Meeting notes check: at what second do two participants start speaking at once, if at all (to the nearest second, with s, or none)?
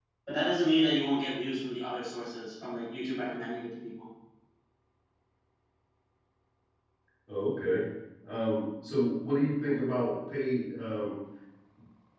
none